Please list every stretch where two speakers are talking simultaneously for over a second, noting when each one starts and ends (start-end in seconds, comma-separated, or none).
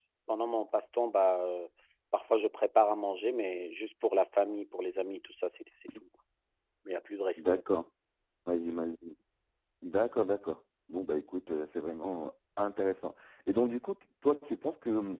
none